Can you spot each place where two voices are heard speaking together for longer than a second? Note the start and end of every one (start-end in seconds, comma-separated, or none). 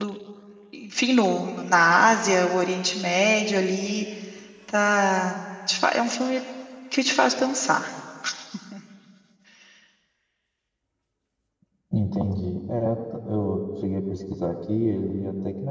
none